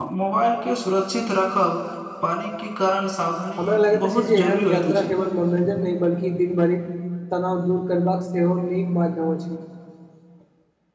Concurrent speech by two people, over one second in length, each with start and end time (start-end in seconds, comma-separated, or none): 3.6-5.1